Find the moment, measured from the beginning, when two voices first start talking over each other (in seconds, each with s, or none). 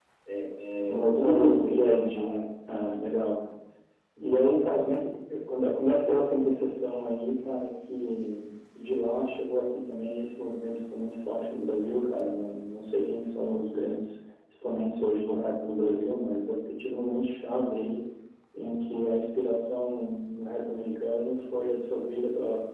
0.9 s